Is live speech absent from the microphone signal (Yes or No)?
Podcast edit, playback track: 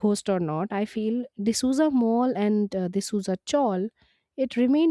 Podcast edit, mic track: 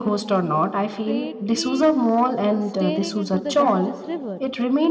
No